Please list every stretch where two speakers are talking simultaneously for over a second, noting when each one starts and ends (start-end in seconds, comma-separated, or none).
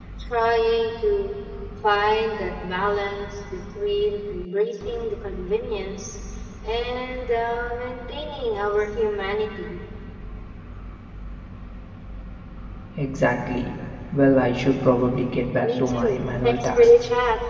15.6-16.9